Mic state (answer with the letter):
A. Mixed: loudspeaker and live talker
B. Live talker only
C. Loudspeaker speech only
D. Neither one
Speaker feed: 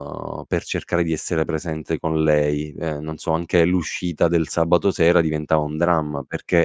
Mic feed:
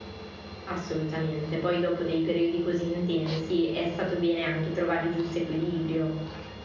B